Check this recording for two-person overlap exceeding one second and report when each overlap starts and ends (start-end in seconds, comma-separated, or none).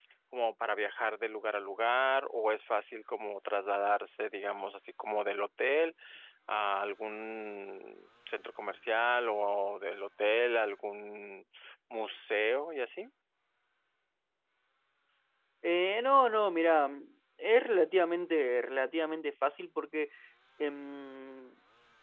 none